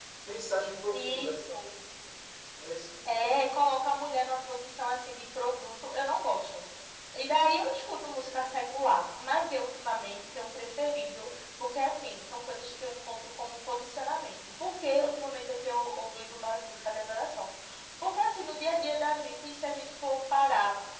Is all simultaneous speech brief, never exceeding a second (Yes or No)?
Yes